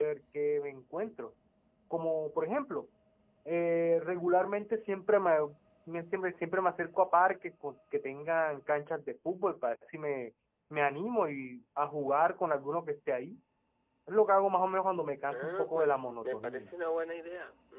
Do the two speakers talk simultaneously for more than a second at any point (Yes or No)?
Yes